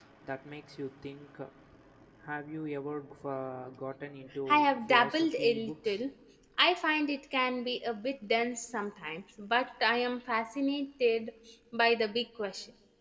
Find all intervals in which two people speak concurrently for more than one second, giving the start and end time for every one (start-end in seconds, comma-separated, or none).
4.5-6.0